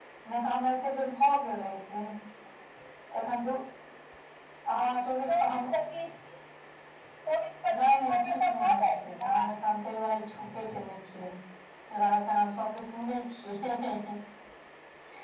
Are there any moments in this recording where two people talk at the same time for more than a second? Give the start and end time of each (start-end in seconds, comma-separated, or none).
7.8-9.3